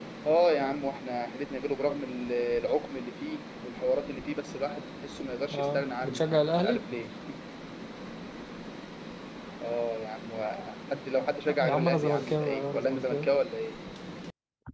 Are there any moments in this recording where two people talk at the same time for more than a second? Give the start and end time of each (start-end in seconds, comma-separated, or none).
5.5-6.8, 11.5-13.3